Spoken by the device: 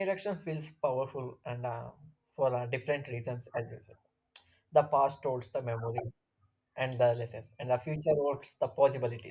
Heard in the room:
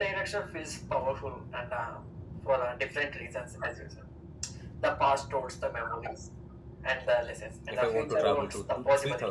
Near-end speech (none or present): present